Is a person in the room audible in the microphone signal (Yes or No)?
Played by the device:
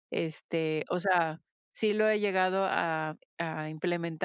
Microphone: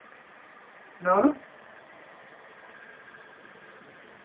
Yes